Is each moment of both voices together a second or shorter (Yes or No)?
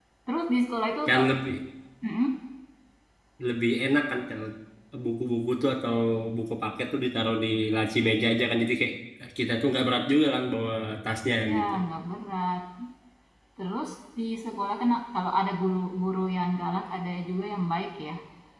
Yes